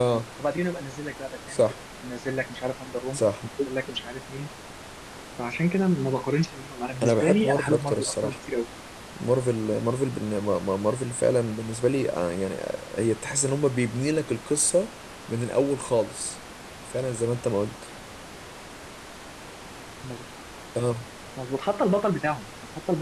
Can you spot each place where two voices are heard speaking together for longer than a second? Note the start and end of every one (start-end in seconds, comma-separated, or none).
7.0-8.4